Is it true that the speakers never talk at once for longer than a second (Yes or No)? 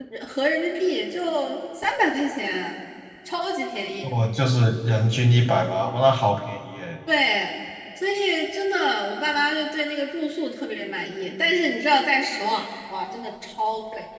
Yes